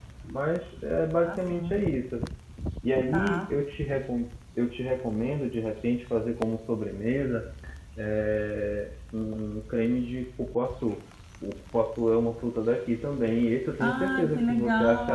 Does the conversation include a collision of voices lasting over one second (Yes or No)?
Yes